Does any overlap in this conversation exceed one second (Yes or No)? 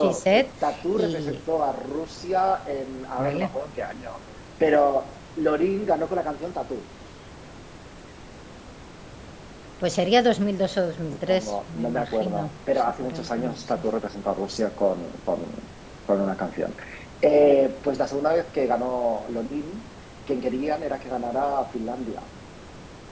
Yes